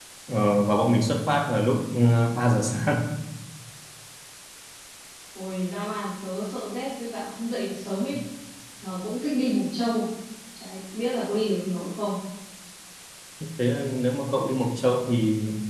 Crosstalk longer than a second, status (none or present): none